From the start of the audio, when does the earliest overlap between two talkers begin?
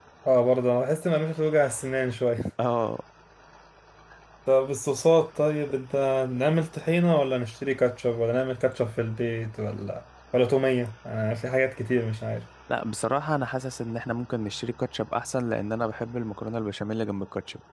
none

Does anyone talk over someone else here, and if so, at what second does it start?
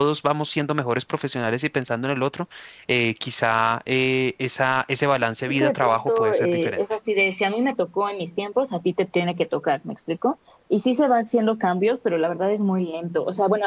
5.5 s

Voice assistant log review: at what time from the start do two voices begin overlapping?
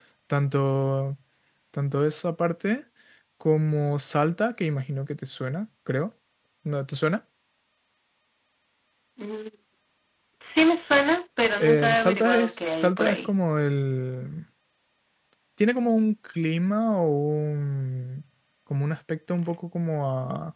11.6 s

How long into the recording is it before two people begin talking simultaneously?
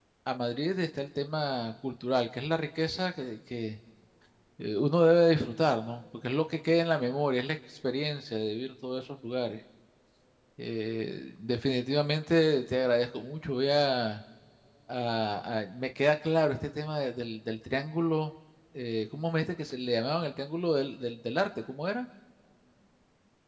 none

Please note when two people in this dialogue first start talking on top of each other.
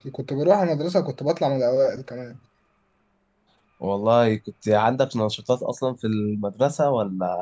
none

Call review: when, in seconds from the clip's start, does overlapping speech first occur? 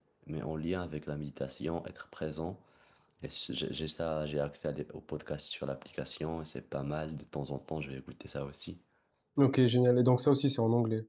none

